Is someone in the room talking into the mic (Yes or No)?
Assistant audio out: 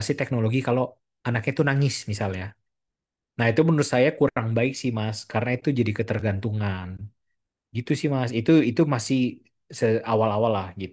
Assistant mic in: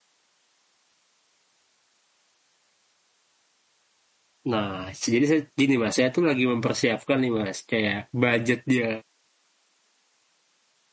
Yes